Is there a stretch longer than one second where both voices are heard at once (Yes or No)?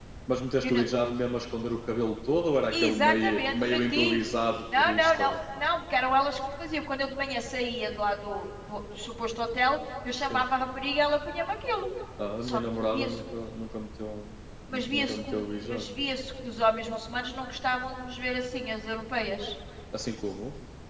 Yes